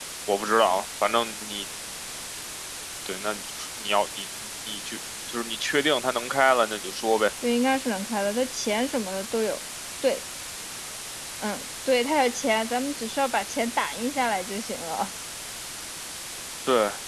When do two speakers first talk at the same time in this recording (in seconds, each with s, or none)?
none